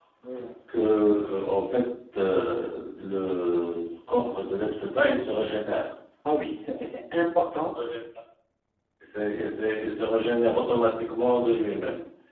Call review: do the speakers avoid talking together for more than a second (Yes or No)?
Yes